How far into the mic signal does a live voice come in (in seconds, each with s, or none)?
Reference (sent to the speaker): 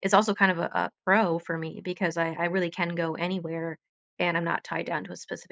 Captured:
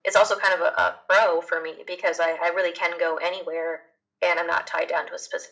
none